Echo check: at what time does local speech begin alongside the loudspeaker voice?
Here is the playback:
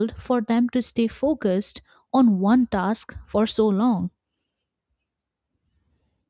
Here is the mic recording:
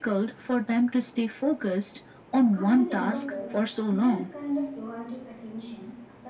2 s

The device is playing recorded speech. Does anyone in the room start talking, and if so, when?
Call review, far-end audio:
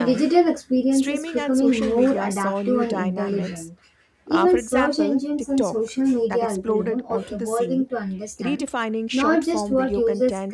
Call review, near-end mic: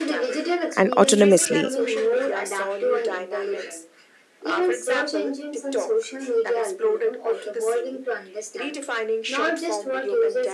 1 s

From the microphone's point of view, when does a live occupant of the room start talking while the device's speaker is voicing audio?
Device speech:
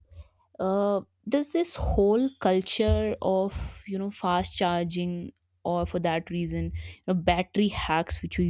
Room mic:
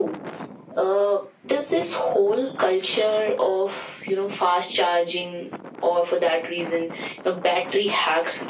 none

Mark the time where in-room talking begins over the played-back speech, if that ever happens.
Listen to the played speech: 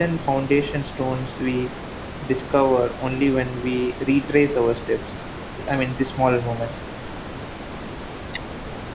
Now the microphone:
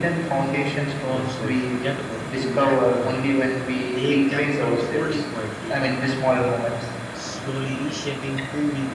1 s

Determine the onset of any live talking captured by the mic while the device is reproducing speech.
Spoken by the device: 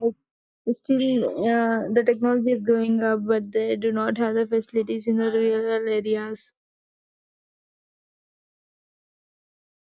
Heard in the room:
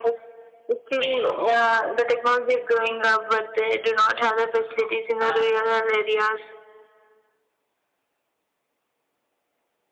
none

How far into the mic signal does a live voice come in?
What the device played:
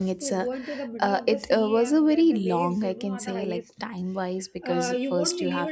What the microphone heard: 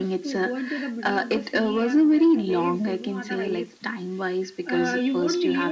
none

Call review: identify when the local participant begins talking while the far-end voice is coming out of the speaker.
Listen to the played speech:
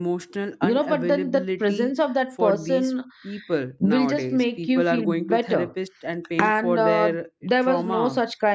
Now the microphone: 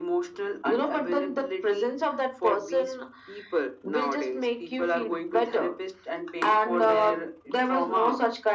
none

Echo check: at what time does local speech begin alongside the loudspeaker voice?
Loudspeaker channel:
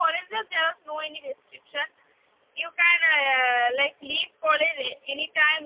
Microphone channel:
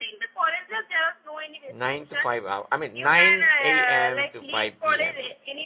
2 s

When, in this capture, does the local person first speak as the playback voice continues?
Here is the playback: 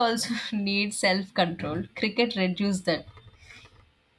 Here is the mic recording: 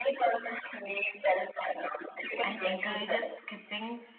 2 s

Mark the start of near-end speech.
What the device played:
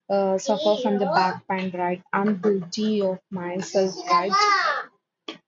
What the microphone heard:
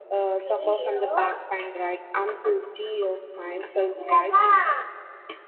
none

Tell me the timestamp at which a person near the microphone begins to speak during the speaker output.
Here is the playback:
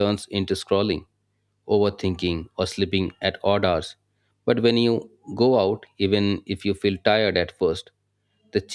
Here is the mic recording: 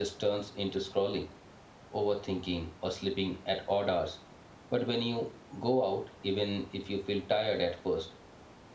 none

